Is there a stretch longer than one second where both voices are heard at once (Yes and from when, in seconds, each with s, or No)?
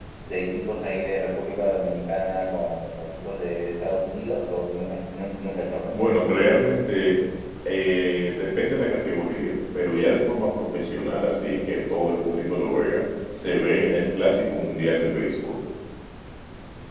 No